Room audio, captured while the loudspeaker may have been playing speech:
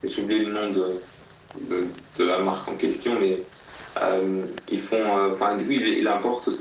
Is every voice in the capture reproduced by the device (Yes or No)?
Yes